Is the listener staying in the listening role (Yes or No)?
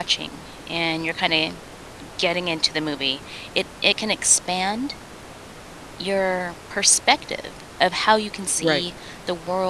Yes